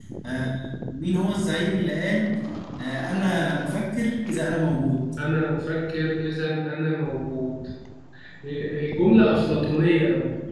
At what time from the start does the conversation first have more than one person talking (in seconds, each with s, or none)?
none